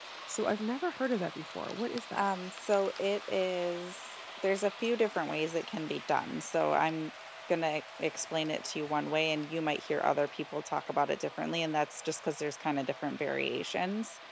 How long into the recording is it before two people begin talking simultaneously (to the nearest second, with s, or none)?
none